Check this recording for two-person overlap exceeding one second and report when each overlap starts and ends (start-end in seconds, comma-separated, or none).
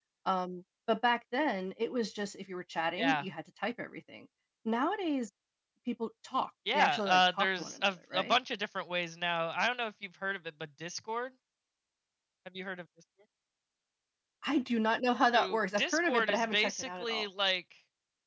6.7-8.4, 15.3-17.2